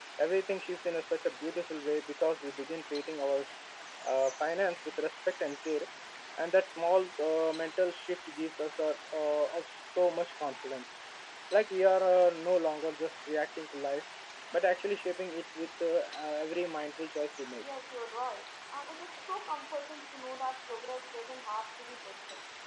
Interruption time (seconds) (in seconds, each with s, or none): none